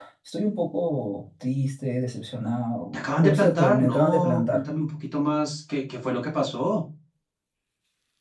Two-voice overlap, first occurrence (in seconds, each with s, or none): 2.9 s